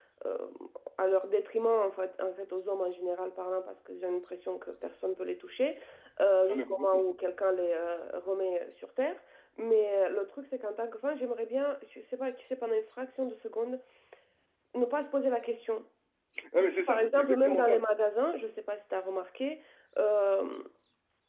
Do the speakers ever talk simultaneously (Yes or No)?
Yes